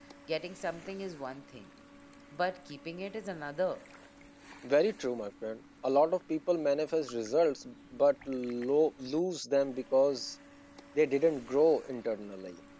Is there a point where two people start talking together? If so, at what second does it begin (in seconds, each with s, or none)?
none